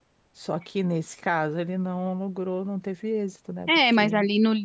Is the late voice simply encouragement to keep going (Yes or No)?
No